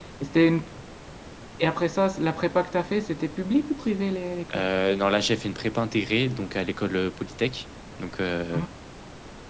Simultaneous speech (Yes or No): No